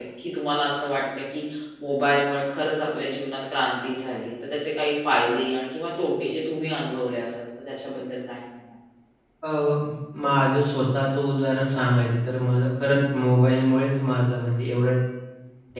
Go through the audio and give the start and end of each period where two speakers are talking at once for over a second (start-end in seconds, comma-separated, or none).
none